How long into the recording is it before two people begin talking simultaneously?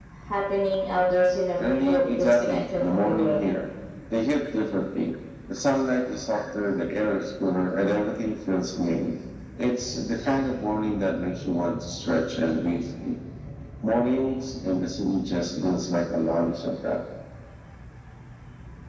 1.6 s

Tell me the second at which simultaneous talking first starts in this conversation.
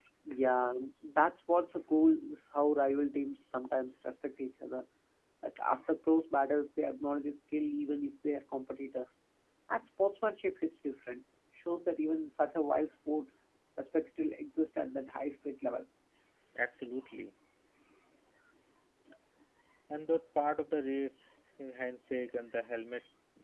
none

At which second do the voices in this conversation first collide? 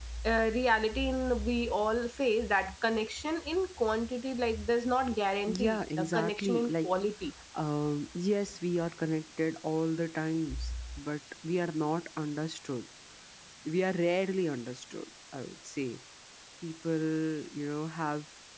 5.5 s

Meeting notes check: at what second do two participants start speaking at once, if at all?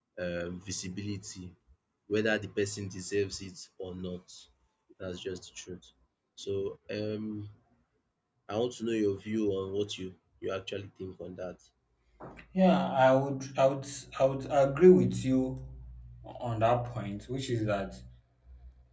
none

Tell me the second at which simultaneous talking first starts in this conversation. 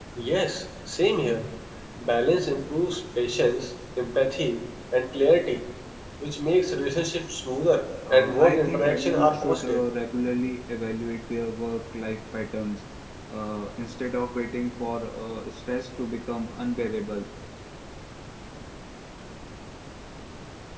8.0 s

